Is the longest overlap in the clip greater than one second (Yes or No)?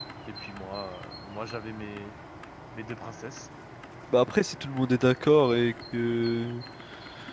No